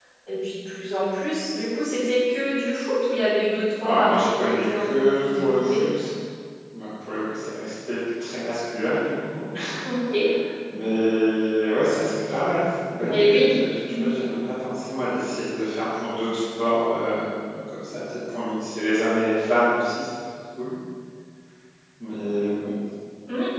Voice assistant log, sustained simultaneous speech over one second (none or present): present